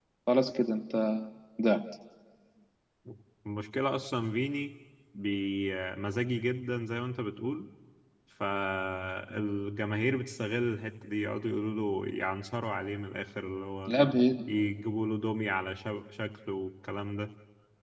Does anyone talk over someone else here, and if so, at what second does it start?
none

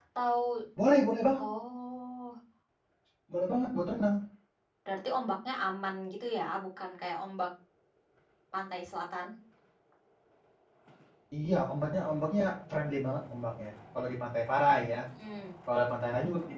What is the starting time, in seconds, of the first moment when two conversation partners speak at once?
none

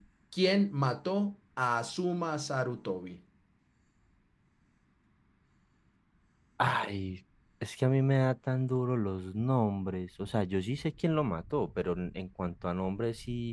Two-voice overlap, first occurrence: none

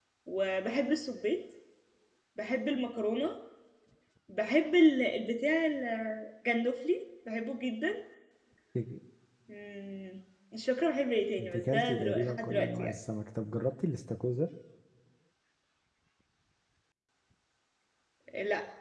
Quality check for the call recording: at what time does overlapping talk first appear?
11.4 s

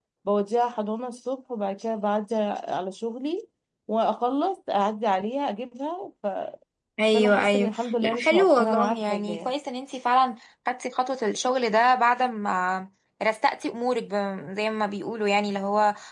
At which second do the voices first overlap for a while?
7.1 s

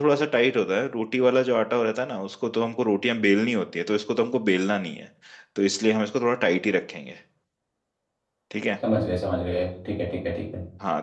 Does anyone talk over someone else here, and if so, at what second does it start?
none

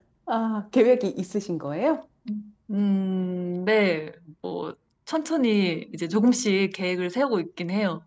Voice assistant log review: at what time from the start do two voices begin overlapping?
none

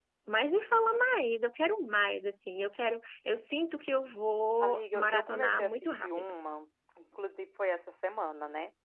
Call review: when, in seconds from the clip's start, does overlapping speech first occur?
4.6 s

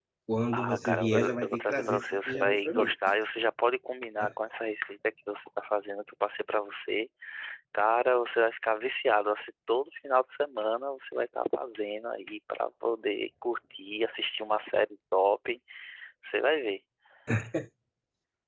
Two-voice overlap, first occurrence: 0.6 s

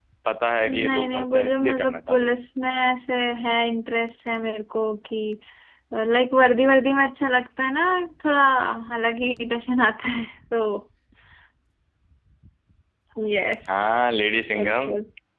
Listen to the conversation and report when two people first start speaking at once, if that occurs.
0.6 s

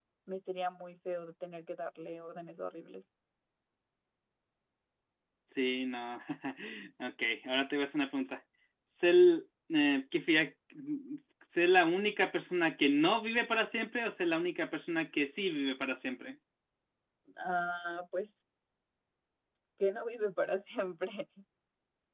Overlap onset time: none

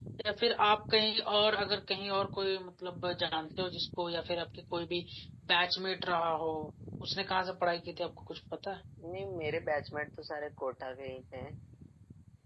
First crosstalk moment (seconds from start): none

